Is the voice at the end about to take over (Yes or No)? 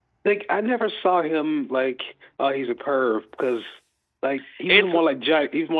No